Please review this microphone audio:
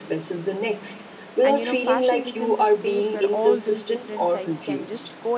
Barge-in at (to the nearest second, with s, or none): 1 s